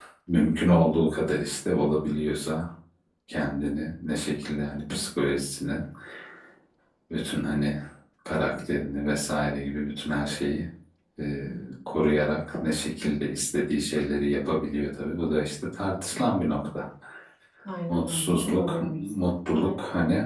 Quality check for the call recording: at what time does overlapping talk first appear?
17.9 s

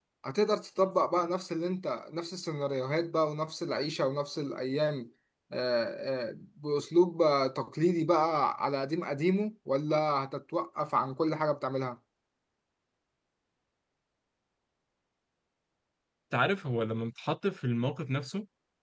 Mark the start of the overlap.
none

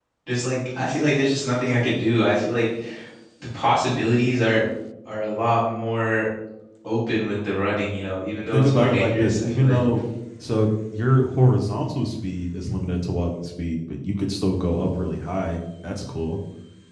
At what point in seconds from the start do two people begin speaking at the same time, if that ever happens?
8.4 s

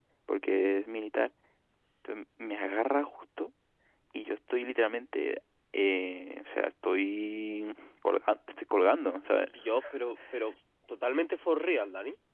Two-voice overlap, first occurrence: none

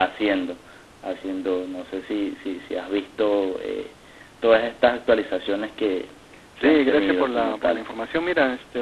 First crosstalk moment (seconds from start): 6.6 s

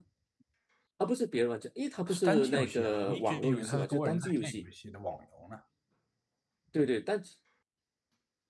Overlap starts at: 2.1 s

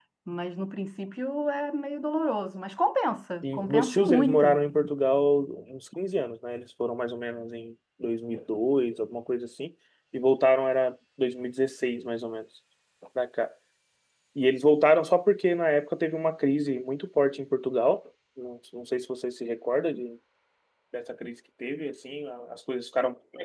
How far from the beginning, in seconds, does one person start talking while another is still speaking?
3.4 s

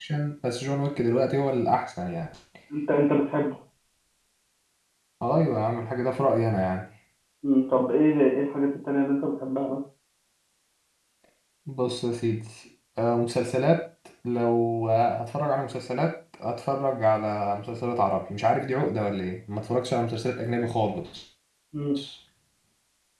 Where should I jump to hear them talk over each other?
none

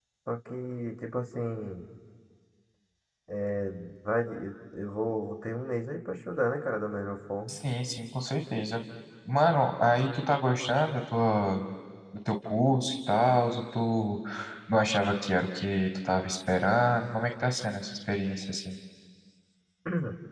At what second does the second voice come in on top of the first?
none

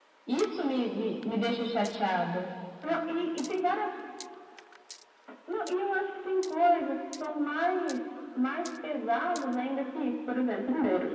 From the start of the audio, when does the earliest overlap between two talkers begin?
none

